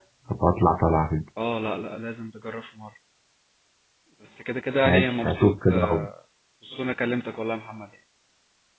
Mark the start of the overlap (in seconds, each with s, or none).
4.8 s